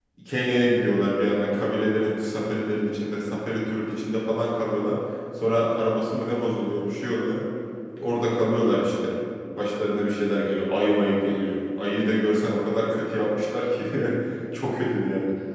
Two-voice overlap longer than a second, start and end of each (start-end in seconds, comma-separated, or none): none